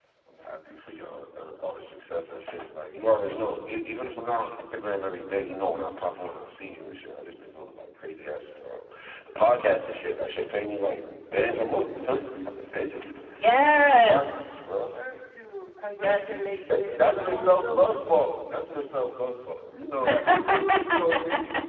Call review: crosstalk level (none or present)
present